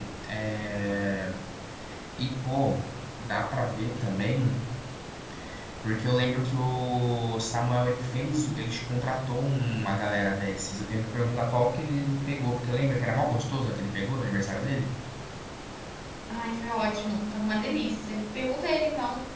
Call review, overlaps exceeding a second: none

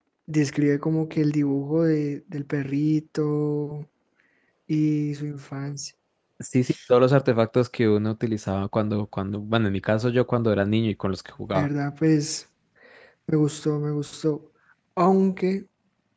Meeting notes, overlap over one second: none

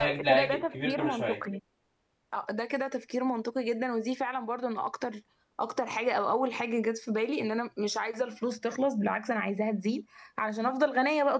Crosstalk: present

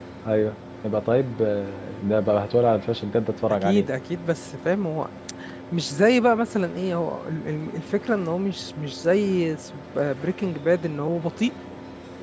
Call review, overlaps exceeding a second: none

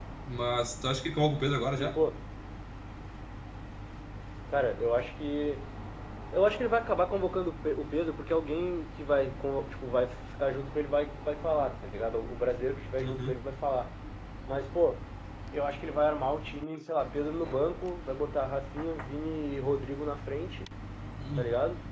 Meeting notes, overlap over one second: none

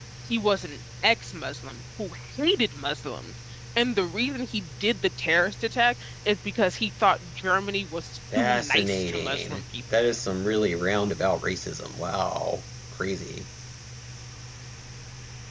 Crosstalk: present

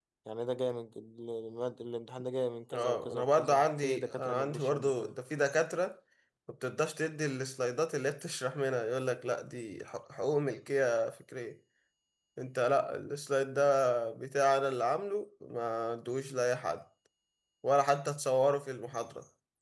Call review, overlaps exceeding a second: present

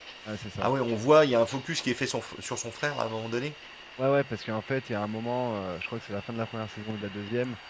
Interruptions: none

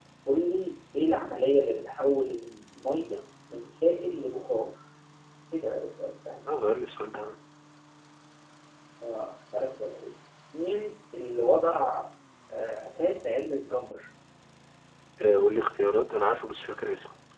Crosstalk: none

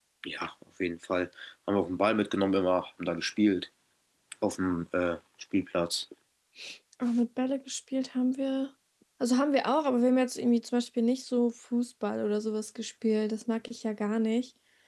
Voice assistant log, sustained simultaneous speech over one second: none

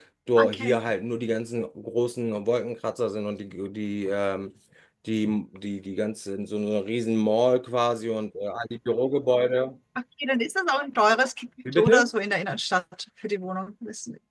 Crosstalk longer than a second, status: none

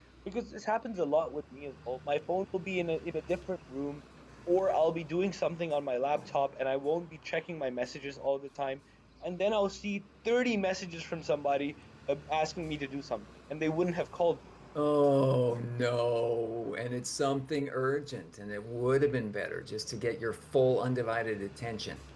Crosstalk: none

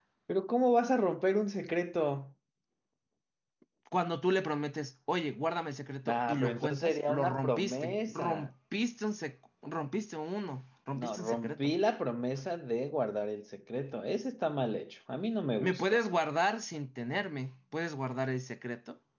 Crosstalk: present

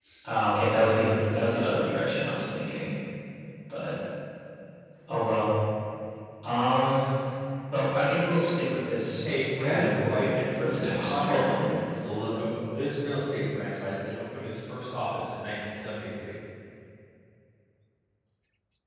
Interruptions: present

